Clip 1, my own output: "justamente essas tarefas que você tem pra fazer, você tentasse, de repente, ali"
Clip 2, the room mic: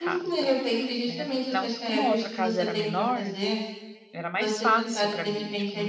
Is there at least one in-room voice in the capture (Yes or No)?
Yes